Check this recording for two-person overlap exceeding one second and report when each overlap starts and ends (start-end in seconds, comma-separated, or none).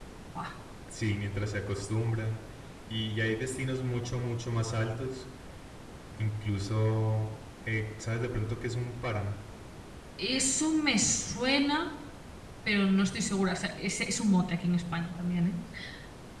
none